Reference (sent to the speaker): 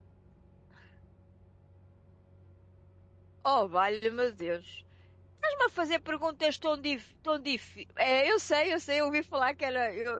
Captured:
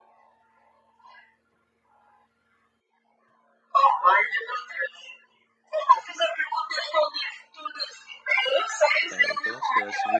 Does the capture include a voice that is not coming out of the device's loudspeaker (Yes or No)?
Yes